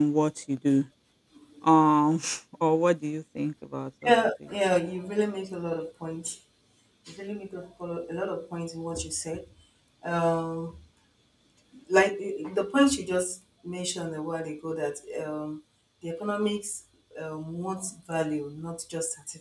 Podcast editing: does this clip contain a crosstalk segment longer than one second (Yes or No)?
No